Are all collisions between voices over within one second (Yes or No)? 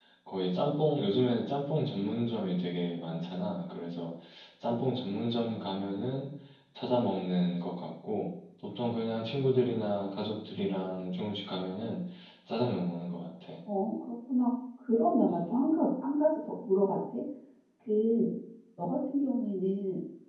Yes